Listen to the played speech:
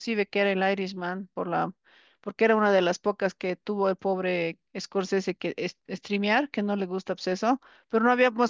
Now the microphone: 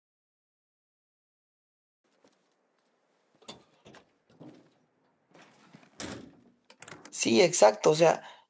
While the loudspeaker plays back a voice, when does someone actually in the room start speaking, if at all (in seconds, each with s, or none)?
7.1 s